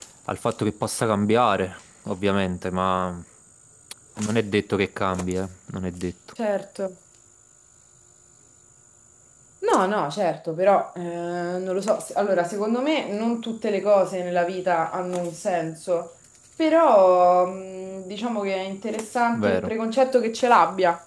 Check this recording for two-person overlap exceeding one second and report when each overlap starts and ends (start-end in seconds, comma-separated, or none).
none